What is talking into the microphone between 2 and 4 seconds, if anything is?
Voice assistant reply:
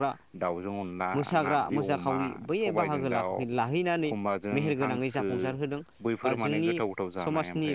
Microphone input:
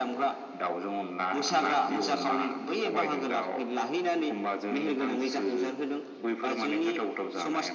echo only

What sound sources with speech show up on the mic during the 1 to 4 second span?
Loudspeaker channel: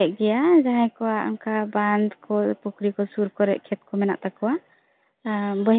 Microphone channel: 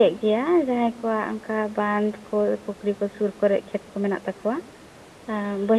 echo only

